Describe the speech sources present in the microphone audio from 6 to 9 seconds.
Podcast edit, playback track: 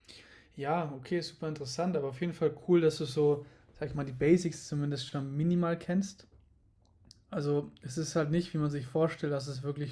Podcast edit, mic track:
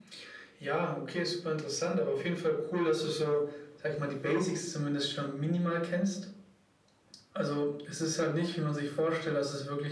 echo only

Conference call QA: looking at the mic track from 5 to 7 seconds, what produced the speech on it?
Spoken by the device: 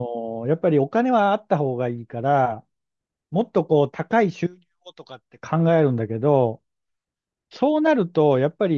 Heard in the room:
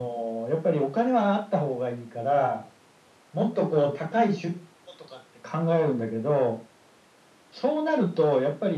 echo only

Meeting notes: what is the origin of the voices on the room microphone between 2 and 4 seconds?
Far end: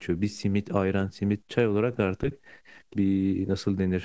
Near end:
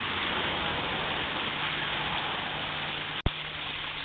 neither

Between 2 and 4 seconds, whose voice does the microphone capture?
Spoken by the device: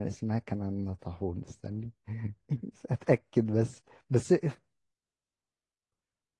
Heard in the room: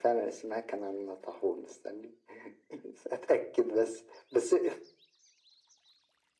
echo only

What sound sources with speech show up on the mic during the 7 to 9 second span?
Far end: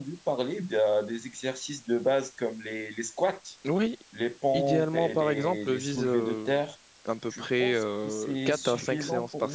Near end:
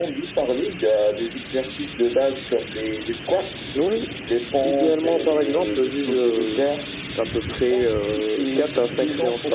echo only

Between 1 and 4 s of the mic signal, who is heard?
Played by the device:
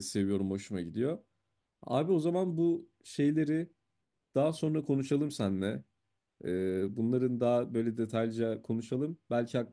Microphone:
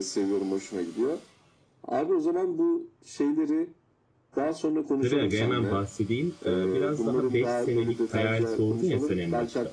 echo only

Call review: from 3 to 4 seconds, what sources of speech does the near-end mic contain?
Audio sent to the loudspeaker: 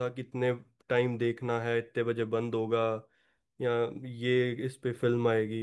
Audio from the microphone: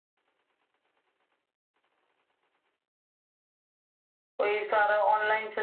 neither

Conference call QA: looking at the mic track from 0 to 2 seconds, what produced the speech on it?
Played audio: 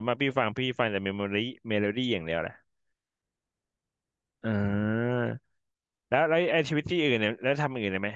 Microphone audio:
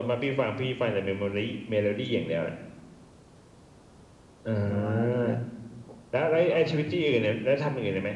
echo only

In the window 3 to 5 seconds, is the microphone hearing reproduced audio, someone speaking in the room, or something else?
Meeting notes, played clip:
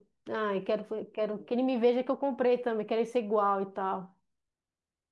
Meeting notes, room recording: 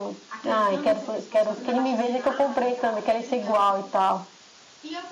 both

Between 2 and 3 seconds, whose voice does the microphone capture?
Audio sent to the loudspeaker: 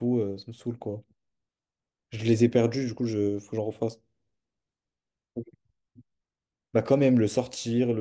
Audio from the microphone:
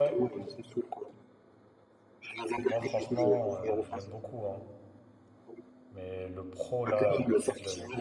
both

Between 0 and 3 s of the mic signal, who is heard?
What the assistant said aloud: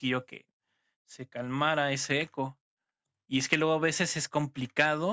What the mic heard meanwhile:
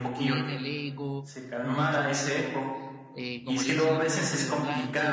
both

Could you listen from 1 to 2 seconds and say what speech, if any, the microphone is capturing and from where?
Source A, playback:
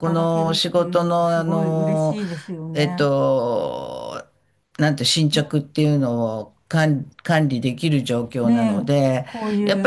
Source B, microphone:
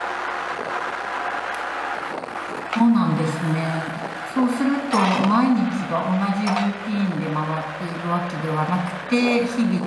neither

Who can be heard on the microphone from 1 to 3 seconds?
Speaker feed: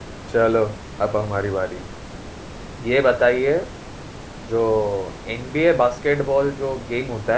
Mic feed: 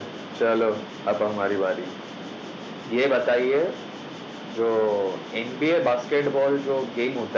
echo only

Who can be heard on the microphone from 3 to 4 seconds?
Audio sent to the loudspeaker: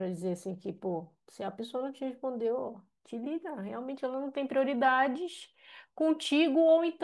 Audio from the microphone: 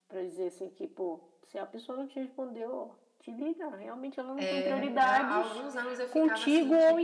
echo only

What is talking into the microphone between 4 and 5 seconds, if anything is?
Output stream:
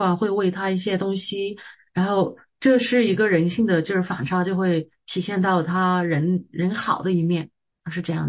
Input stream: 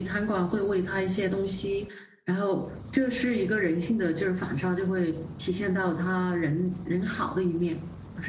echo only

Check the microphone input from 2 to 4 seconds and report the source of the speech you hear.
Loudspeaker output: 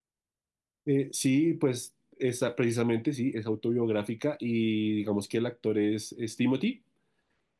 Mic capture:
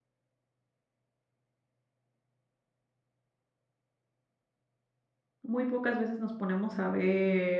neither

